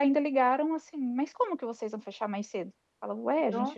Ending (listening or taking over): listening